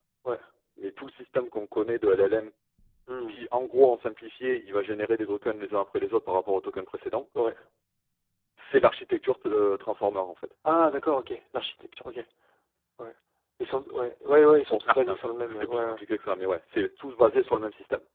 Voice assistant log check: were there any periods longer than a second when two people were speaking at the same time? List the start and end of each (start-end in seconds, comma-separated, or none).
14.7-16.0